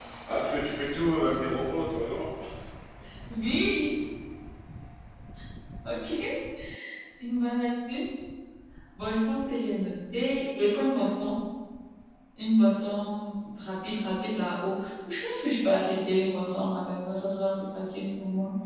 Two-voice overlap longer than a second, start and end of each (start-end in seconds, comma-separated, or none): none